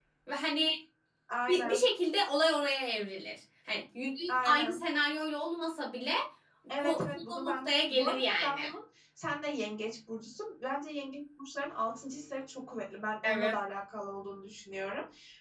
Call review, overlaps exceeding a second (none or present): present